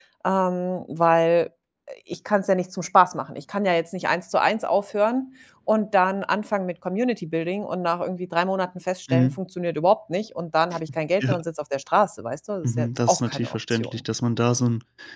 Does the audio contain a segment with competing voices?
Yes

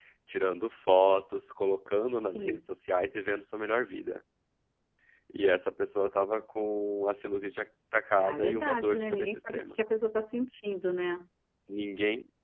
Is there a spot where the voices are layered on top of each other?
Yes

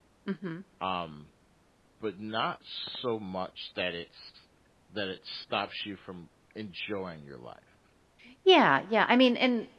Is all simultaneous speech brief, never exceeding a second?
Yes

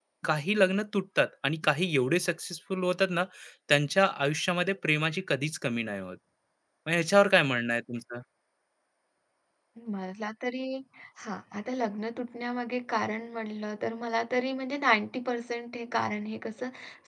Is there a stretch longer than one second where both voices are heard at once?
No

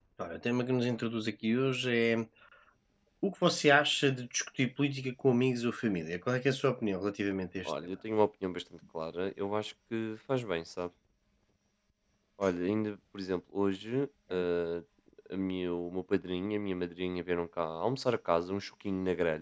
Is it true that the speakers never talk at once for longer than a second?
Yes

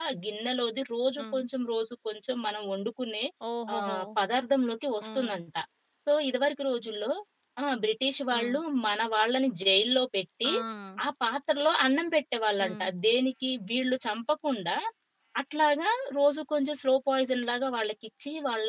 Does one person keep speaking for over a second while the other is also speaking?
No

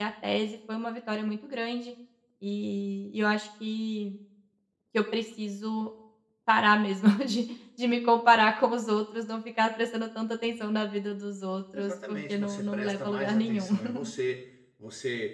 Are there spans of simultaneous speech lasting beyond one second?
Yes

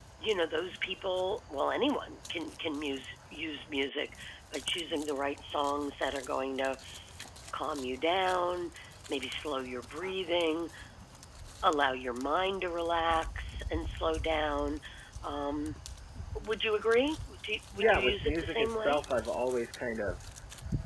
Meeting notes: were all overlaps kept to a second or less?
No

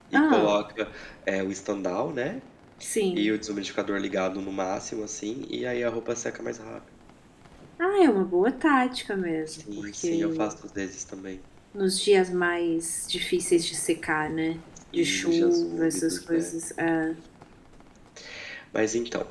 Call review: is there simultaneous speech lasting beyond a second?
Yes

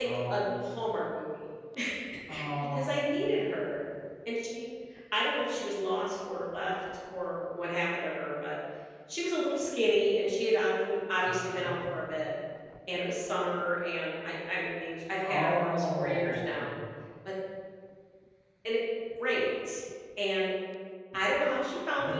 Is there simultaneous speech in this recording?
Yes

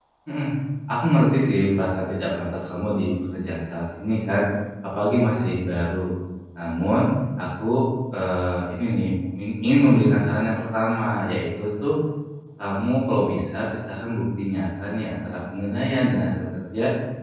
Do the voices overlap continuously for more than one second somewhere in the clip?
No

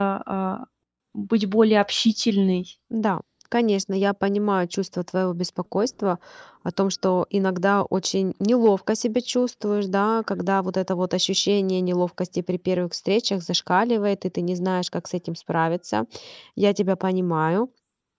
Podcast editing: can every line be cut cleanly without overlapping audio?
Yes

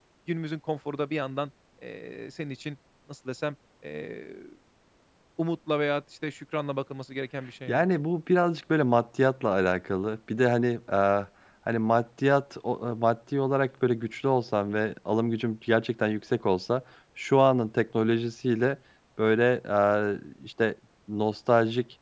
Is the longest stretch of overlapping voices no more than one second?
Yes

